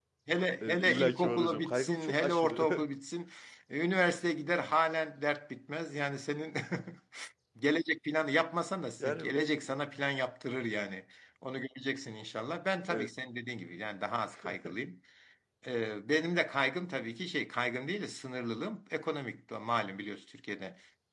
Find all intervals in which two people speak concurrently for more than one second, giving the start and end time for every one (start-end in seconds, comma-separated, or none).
0.6-2.8